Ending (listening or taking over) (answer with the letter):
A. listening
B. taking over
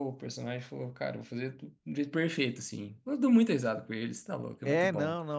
B